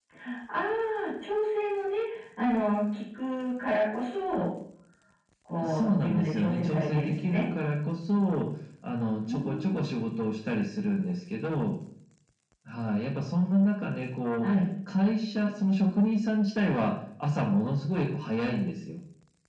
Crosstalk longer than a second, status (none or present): present